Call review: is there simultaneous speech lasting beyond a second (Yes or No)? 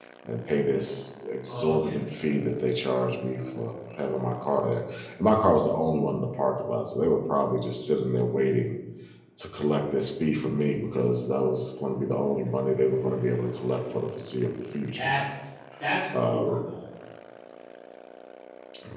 No